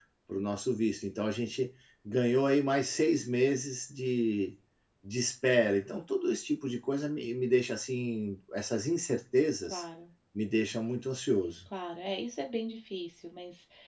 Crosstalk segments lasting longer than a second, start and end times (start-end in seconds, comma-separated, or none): none